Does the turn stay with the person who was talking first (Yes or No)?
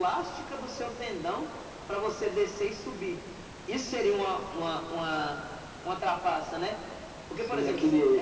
No